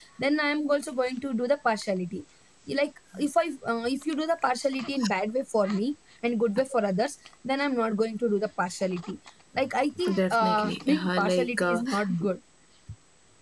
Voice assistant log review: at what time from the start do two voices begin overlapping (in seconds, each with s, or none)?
10.1 s